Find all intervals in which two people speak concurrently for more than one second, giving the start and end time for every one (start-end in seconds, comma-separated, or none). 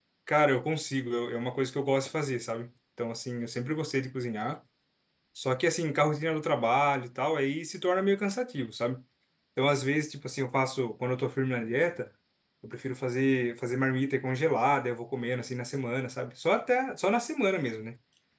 none